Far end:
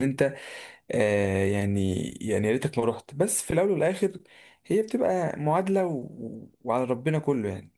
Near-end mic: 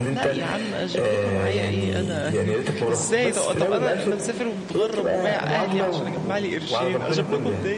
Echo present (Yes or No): Yes